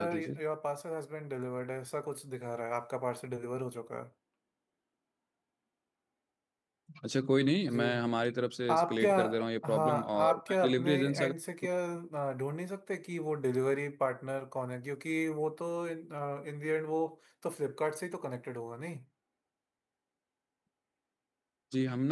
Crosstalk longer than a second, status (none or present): present